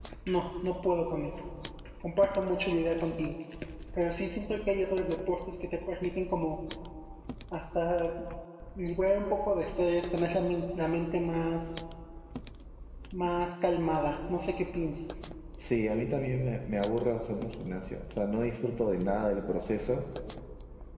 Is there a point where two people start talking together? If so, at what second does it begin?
none

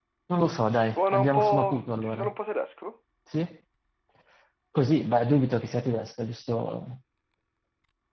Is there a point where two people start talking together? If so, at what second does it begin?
1 s

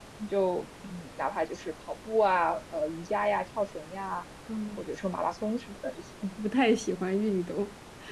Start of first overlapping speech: none

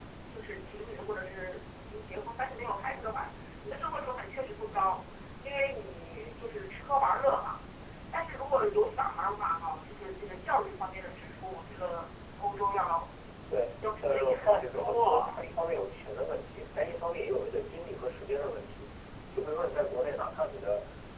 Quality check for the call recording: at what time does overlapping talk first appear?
14 s

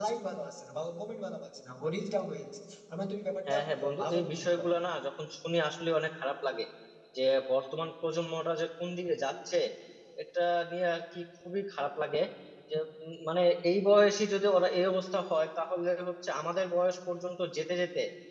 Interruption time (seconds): 3 s

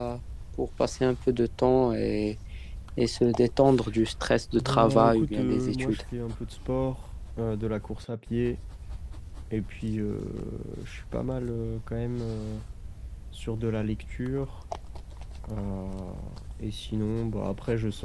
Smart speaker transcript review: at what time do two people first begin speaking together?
5 s

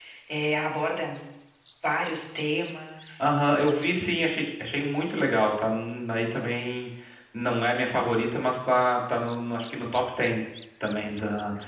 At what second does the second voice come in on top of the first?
none

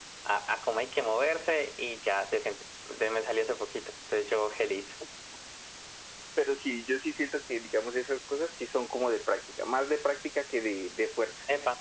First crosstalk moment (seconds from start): none

